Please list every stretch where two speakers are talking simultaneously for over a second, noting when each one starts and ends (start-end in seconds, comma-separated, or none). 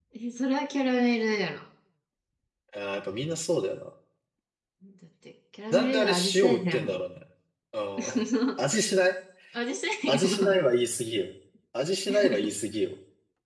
5.7-7.0